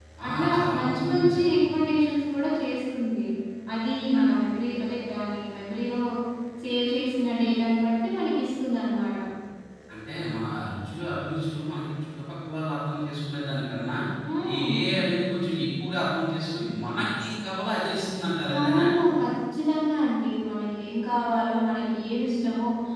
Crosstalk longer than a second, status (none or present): present